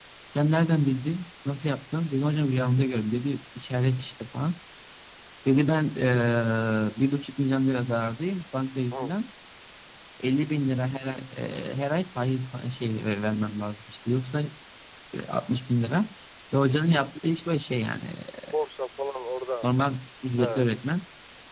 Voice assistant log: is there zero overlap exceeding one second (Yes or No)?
Yes